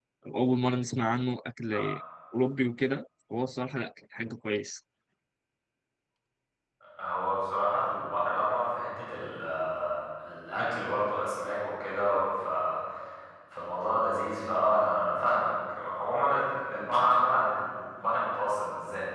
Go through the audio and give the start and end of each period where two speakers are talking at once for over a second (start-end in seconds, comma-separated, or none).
none